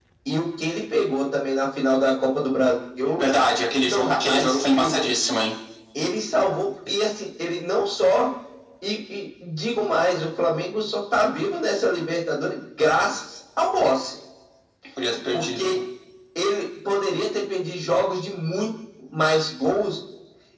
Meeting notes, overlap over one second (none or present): present